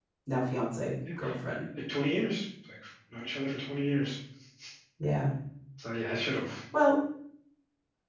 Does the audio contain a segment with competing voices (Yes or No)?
No